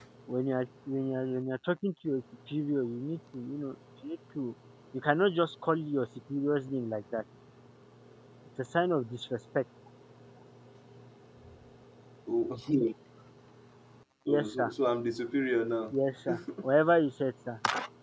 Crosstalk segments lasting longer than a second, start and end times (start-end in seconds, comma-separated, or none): none